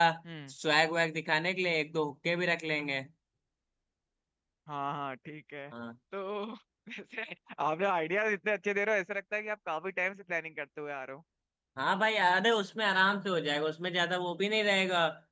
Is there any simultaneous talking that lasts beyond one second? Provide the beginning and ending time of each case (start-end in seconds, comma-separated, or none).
none